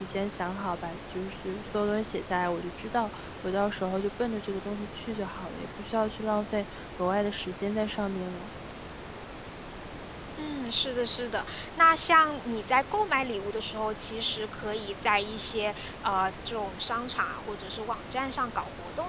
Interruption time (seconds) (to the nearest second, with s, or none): none